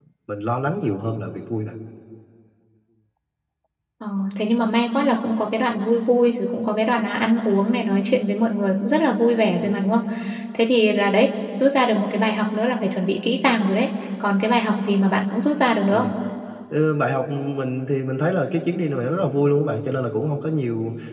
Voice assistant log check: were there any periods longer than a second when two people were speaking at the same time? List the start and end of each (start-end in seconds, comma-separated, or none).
none